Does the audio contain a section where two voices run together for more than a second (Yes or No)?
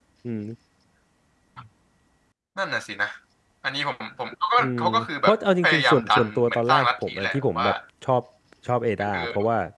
Yes